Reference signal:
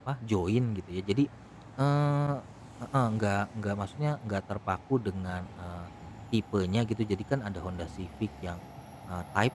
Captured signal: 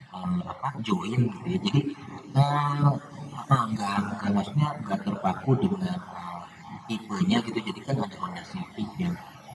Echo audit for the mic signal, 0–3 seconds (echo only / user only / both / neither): echo only